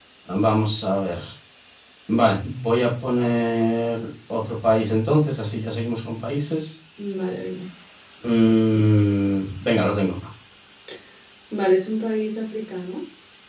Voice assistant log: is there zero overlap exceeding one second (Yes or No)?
Yes